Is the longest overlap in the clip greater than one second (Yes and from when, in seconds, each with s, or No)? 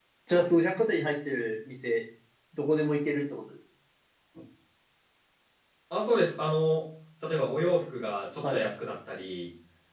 No